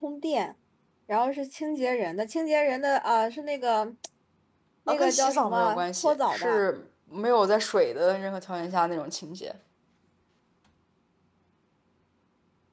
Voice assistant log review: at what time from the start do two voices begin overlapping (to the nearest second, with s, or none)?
5 s